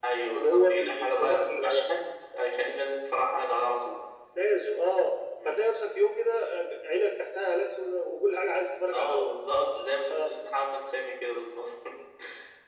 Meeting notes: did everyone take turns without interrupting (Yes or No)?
No